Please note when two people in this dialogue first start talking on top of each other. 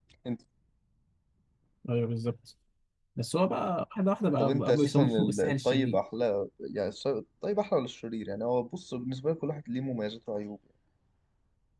4 s

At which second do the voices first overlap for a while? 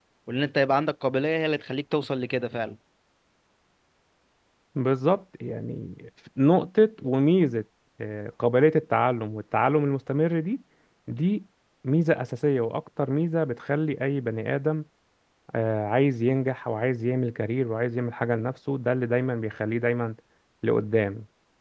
none

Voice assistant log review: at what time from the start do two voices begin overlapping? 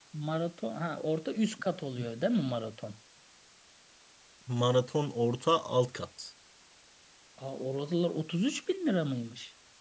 none

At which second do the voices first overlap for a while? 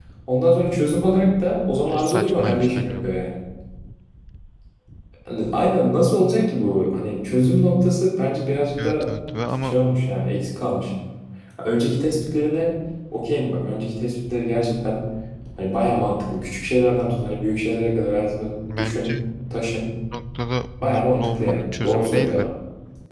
2 s

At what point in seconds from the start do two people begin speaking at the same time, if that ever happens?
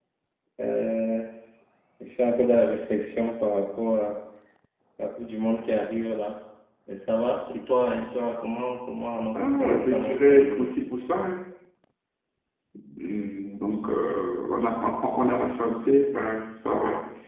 9 s

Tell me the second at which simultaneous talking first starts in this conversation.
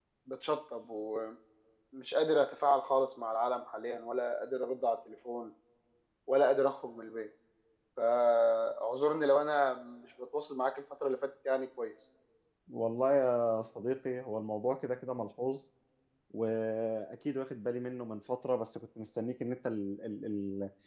none

